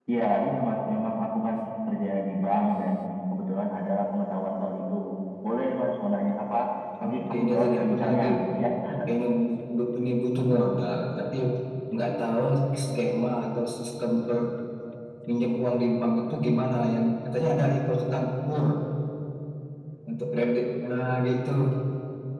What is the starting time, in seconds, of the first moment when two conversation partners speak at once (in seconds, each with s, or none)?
7.0 s